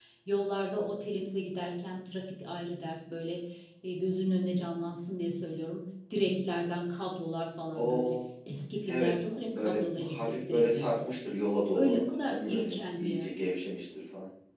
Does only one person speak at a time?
No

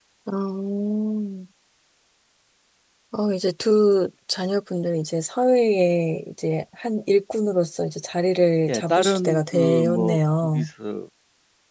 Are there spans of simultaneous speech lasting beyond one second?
Yes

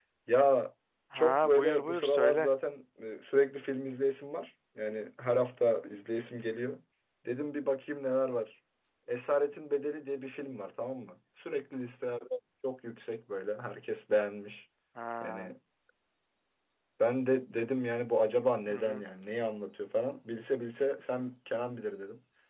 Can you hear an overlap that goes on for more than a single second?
Yes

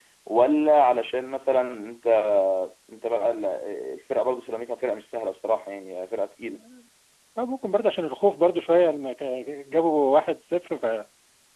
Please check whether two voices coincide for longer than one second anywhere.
No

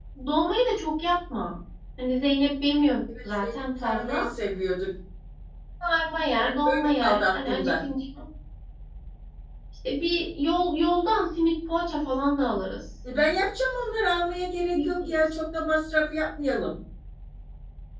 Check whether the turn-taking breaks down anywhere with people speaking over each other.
Yes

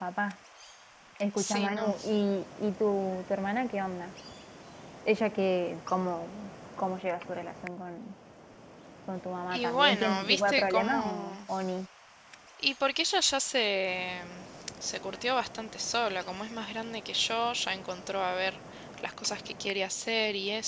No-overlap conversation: No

